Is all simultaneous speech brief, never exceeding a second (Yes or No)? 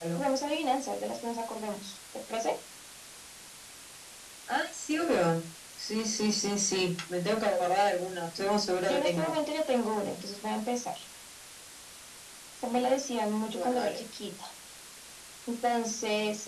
Yes